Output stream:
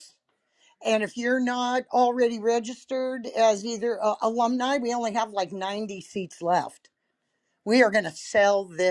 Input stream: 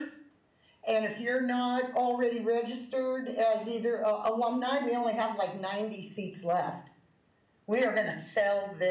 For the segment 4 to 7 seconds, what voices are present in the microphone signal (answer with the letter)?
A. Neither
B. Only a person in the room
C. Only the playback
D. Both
C